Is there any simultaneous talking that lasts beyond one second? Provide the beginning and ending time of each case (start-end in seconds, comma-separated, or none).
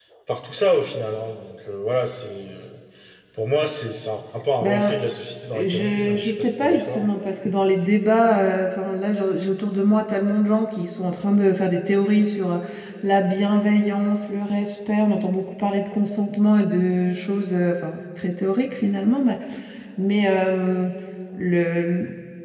5.5-7.1